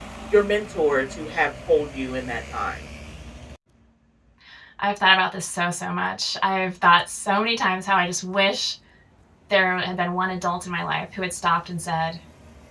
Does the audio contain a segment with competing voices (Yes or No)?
No